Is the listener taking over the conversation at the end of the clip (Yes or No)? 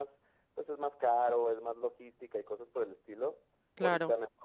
No